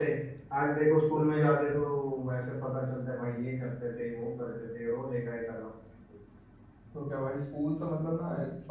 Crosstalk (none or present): none